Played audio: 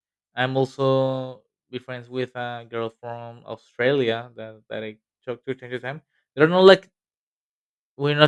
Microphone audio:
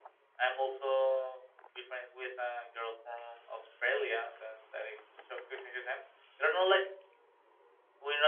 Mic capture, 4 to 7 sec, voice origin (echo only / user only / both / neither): echo only